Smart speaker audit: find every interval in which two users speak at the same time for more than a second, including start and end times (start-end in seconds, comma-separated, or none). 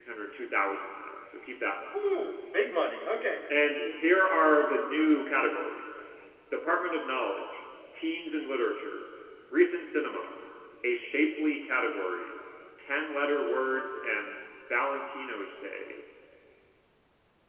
none